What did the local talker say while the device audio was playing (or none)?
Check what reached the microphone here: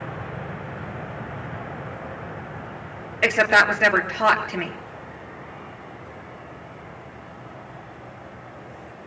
except that was never taught to me.